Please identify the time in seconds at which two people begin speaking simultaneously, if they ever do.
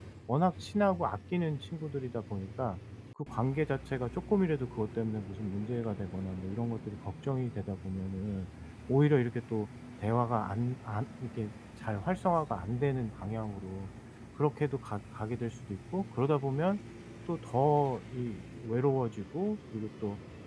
none

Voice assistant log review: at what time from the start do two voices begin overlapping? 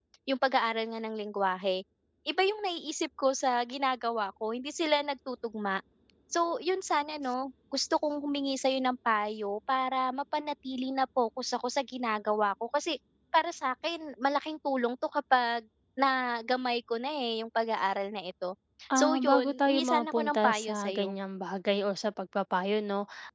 19.0 s

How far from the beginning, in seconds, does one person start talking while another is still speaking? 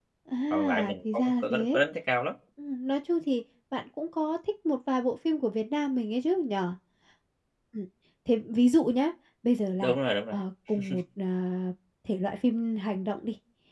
0.5 s

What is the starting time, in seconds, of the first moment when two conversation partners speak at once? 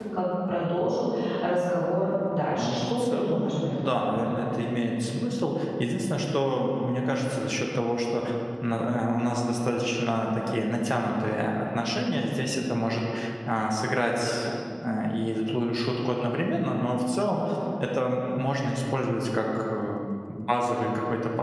2.5 s

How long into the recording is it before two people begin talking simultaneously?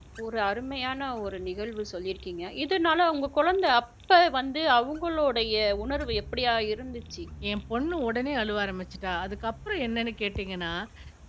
none

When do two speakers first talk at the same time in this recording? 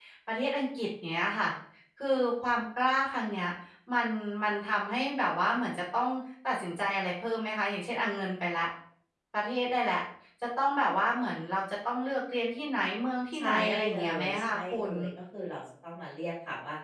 13.3 s

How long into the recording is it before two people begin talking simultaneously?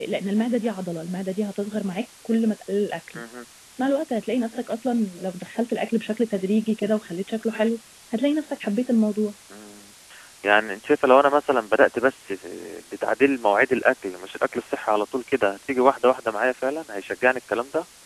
none

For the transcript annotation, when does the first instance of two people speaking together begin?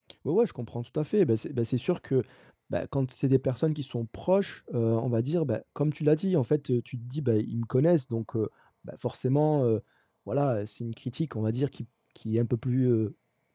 none

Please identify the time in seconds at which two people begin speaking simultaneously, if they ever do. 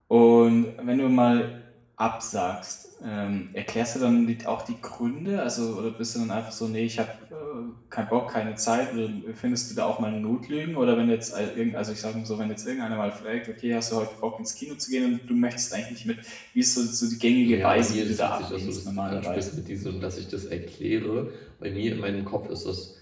17.4 s

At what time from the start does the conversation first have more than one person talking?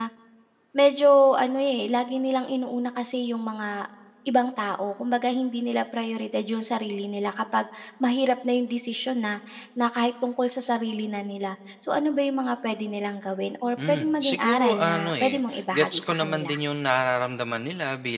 13.8 s

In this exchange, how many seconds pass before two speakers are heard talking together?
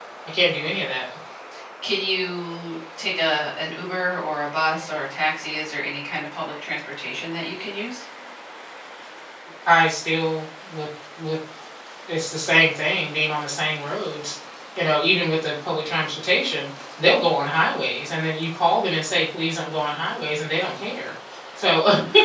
none

